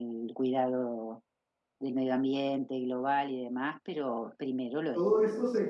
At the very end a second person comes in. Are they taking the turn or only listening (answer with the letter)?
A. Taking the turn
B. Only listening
A